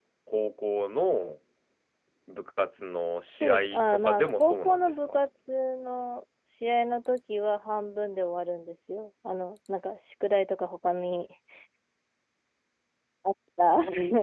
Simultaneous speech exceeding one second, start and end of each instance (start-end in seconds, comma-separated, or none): 3.4-5.2